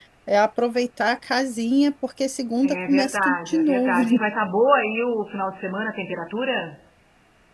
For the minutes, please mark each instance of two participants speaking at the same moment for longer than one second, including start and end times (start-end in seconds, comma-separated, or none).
2.6-4.0